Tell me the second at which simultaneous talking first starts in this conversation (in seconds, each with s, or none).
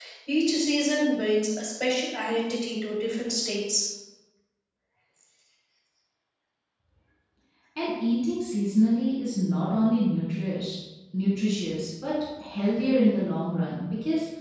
none